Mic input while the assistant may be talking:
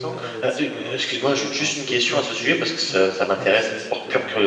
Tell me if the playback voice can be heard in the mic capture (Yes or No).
Yes